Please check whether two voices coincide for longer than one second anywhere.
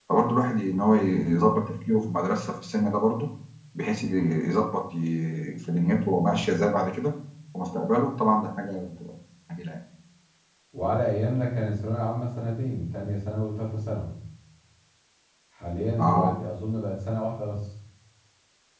No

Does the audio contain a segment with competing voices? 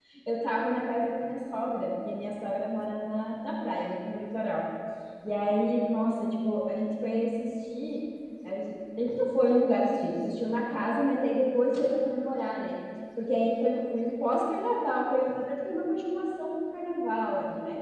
No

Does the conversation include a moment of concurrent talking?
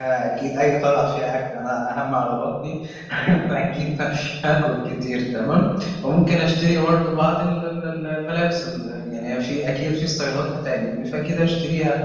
No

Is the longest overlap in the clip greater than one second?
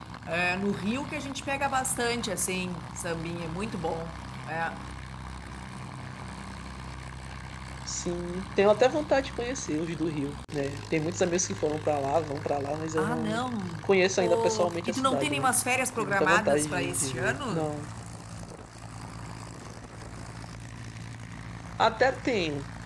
Yes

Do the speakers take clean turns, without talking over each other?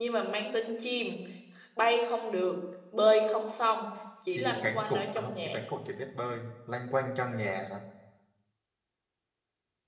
No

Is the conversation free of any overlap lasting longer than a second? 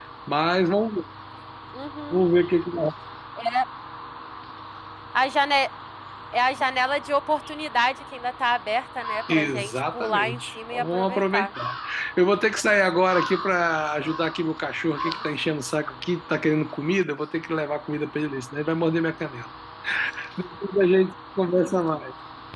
No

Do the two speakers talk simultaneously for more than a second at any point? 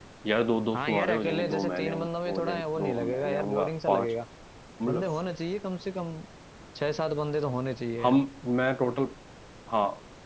Yes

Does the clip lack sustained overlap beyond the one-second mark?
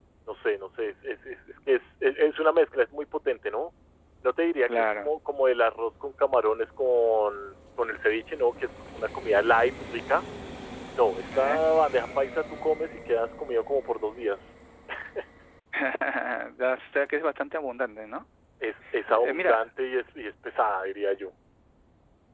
Yes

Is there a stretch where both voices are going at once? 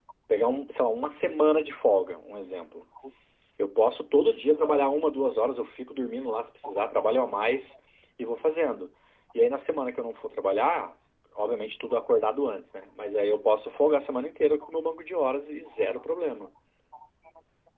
No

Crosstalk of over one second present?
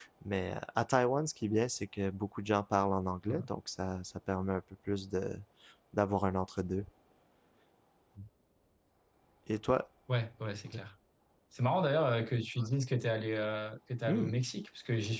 No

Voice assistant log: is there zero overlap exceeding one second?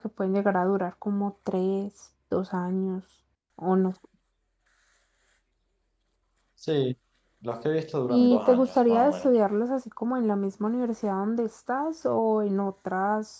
No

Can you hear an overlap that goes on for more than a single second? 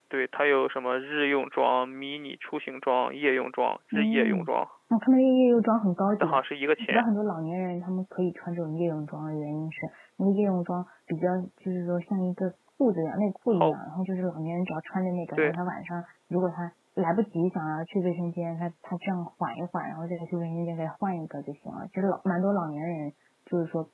No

